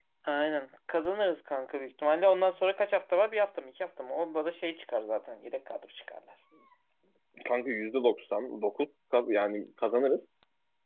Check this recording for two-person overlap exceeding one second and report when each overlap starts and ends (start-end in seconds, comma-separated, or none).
none